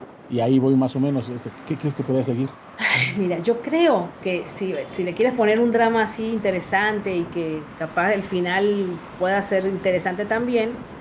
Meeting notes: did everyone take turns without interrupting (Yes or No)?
Yes